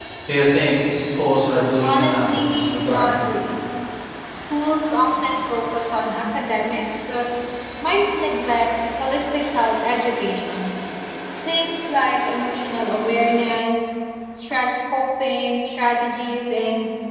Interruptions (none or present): present